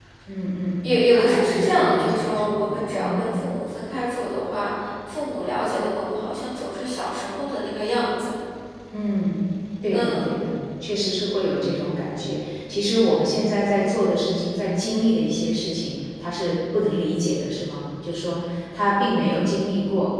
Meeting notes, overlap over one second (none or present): present